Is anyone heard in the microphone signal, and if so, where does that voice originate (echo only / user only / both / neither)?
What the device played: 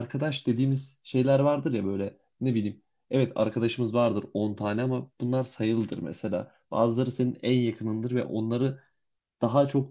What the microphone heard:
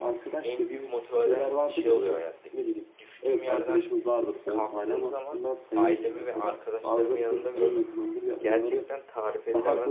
both